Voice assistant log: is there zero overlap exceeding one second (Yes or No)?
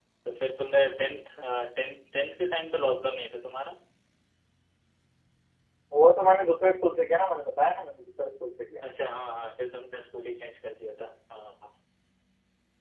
Yes